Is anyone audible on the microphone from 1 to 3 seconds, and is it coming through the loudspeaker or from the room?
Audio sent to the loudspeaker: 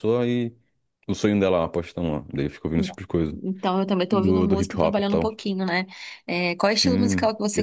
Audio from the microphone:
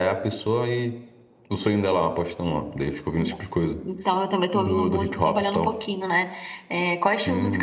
echo only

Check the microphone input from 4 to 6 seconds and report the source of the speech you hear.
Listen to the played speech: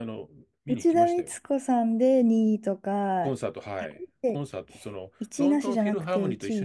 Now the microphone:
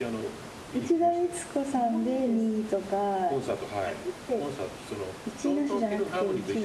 echo only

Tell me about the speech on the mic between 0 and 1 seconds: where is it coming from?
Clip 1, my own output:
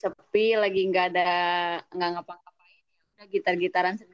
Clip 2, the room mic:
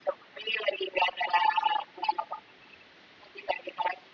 echo only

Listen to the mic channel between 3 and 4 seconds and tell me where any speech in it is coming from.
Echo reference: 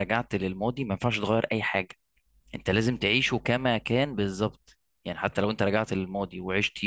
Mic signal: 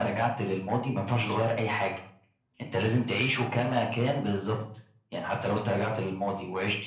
echo only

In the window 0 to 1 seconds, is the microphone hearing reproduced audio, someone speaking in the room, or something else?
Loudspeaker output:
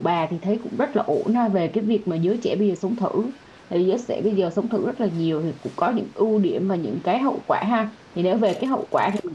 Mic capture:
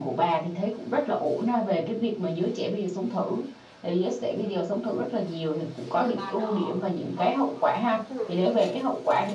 echo only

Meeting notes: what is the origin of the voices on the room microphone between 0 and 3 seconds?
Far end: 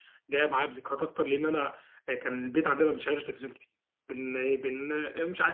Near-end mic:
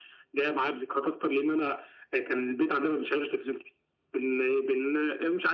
echo only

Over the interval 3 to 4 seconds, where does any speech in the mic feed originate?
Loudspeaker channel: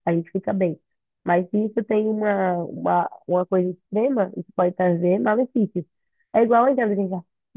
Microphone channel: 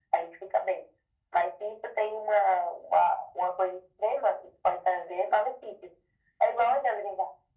echo only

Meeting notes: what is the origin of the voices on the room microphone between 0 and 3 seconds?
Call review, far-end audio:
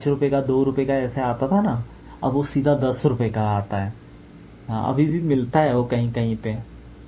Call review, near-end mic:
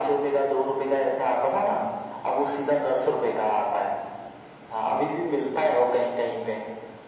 echo only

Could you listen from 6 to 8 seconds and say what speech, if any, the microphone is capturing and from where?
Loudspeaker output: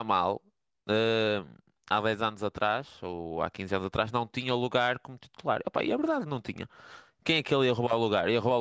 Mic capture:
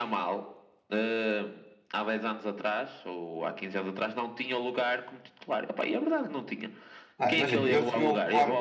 both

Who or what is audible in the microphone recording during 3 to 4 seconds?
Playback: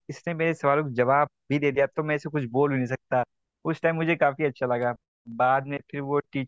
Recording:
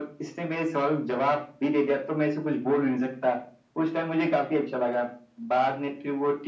echo only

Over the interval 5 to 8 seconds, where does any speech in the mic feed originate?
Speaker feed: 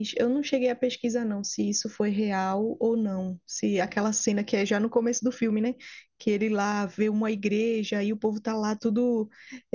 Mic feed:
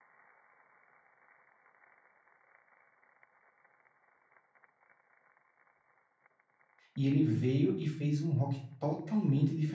user only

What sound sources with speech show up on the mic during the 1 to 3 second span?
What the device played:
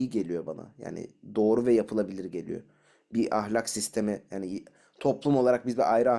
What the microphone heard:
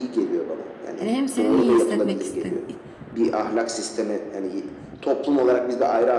both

